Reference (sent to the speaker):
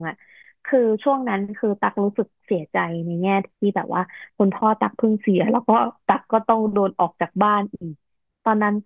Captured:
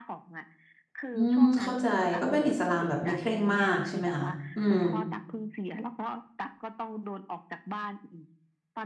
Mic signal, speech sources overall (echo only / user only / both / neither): both